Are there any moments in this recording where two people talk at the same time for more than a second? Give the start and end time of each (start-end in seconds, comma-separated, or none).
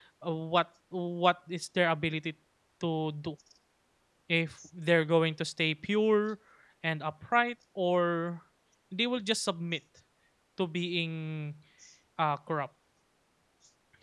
none